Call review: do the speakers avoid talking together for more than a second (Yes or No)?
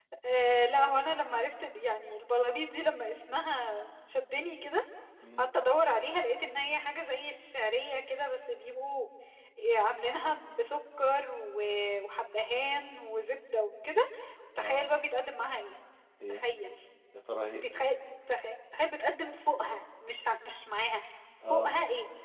Yes